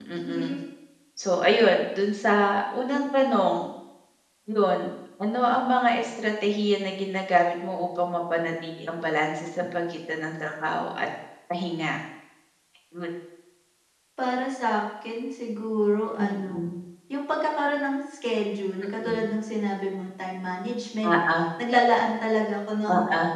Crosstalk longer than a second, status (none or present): none